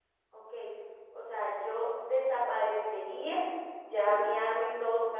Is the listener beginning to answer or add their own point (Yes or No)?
No